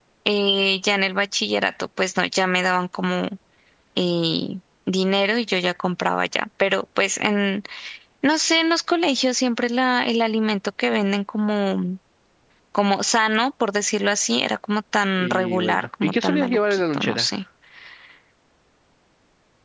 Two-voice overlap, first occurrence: 15.2 s

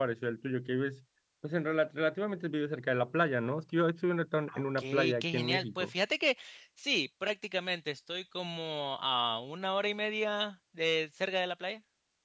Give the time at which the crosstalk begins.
4.5 s

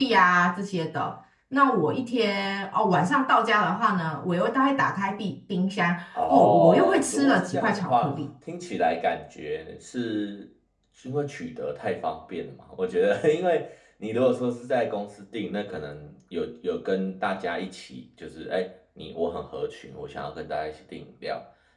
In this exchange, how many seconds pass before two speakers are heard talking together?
6.1 s

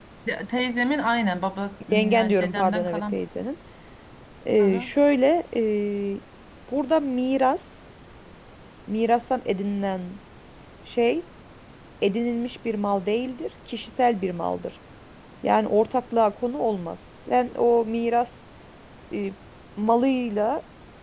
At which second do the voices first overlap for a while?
1.9 s

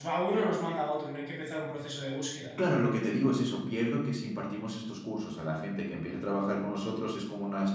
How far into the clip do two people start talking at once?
none

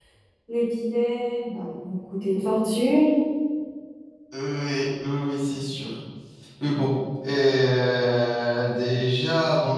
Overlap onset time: none

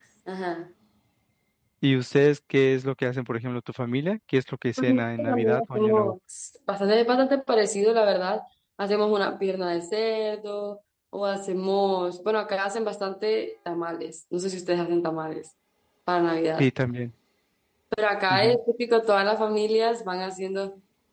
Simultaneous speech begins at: 4.8 s

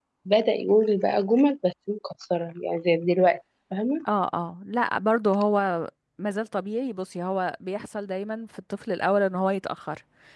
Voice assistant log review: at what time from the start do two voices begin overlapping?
none

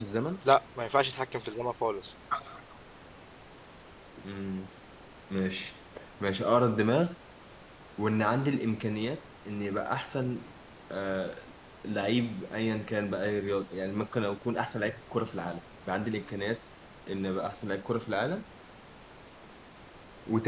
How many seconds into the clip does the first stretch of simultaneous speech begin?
none

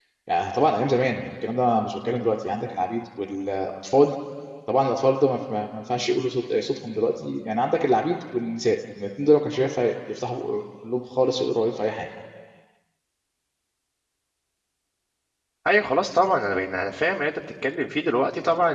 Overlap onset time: none

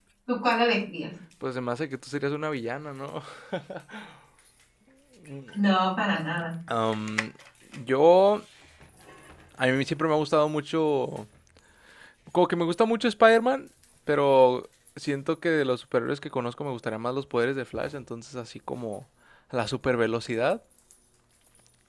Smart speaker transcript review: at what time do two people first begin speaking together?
none

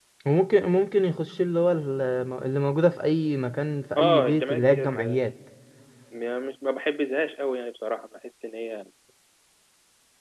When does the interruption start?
4.0 s

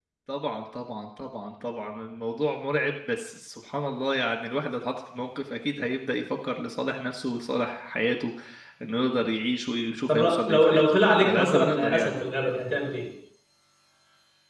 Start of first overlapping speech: 10.1 s

